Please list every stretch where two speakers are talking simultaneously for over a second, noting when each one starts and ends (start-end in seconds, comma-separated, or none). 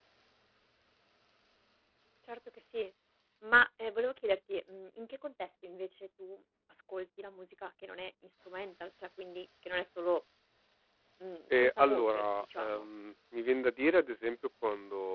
11.6-12.9